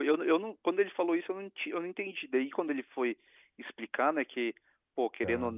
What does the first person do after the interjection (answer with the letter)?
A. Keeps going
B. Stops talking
A